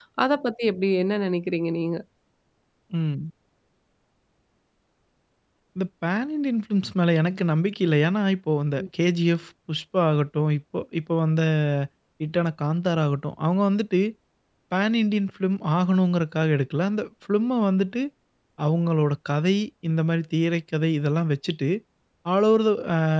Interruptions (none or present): none